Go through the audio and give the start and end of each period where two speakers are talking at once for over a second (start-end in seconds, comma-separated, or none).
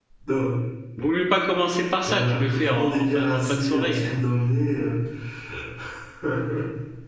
2.0-4.1